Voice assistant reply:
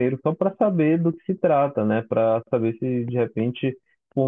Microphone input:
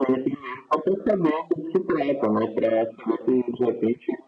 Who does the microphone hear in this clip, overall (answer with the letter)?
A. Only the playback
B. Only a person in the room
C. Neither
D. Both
A